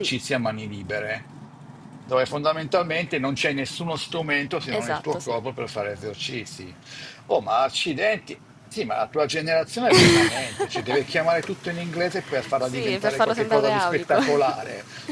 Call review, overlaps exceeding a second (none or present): present